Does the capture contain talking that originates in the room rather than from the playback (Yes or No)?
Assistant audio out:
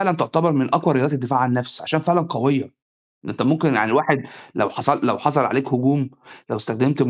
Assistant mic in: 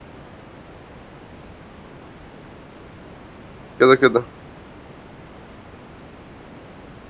Yes